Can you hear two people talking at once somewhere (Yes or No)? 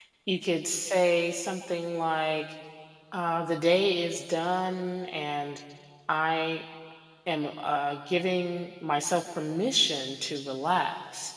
No